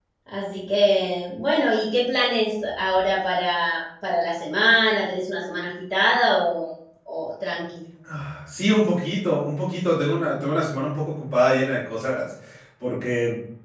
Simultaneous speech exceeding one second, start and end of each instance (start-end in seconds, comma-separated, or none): none